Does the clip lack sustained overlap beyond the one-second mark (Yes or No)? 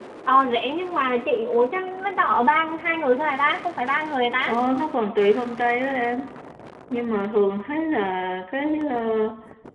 Yes